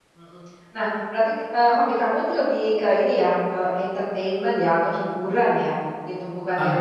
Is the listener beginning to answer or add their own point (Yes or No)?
No